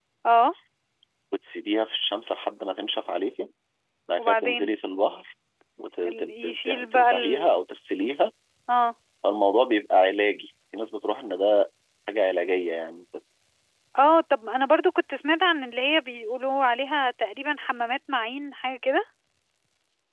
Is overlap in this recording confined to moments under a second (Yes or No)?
No